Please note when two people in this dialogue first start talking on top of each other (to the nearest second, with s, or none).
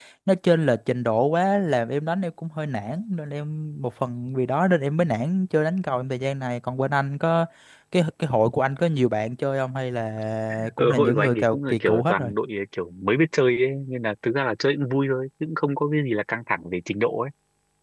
11 s